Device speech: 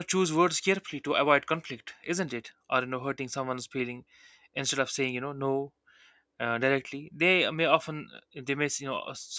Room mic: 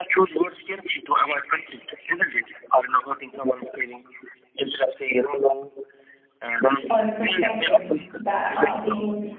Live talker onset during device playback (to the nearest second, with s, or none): 7 s